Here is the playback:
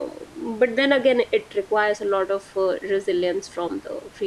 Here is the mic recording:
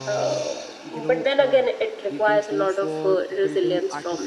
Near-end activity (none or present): present